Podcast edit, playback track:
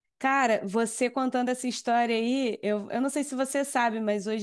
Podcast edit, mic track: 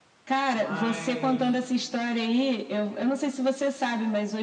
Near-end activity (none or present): present